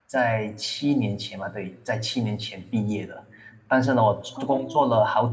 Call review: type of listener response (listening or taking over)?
listening